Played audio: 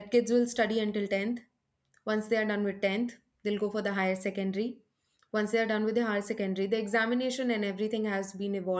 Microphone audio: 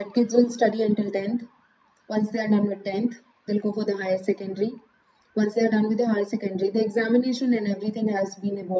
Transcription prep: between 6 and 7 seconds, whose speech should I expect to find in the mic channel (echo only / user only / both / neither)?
echo only